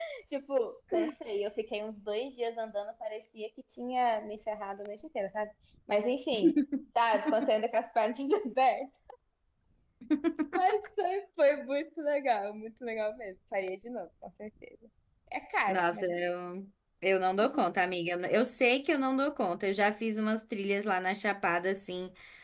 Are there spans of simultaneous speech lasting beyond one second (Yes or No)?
No